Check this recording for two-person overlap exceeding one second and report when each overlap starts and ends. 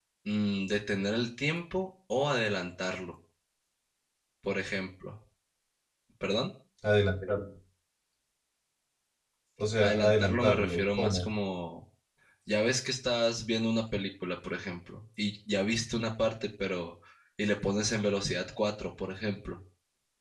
9.8-11.3

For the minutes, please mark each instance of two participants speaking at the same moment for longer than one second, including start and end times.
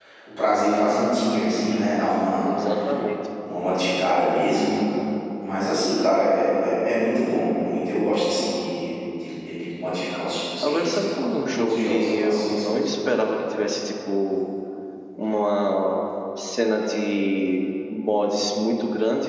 10.6-13.1

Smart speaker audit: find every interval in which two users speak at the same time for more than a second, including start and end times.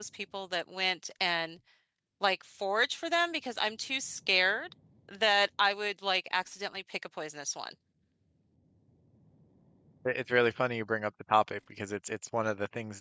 none

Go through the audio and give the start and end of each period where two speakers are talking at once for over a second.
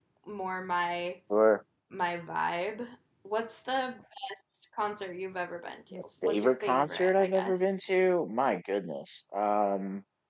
5.9-7.7

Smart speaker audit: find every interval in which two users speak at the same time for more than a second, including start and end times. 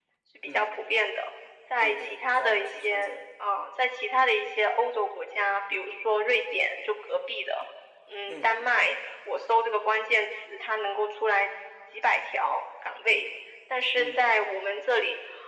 1.8-3.2

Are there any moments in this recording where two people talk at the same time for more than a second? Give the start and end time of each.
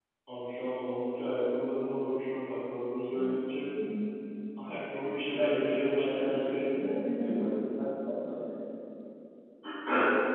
5.4-6.7

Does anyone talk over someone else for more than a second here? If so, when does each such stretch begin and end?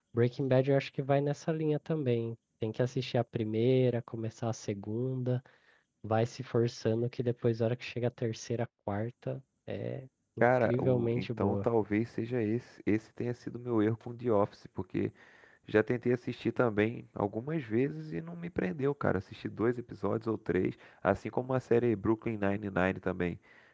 10.4-11.7

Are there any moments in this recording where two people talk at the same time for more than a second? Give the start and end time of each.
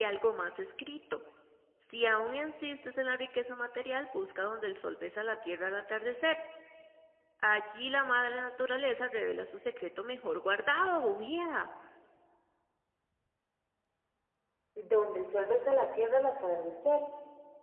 none

